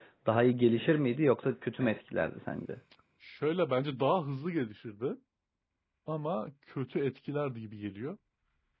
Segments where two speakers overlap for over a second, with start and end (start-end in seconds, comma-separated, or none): none